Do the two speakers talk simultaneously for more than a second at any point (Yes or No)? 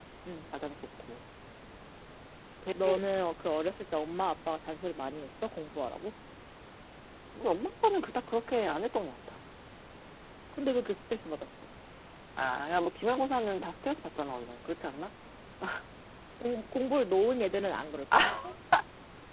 No